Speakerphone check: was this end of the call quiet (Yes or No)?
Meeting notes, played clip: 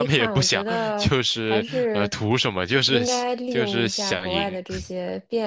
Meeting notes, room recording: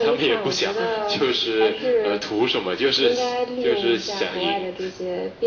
Yes